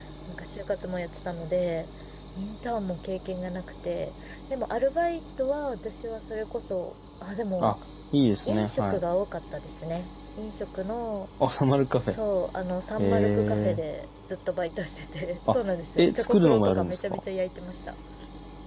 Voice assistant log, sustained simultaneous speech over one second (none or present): present